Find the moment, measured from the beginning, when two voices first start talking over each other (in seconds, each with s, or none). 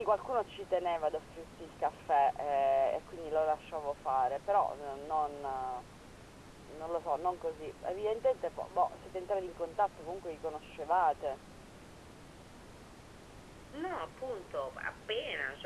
none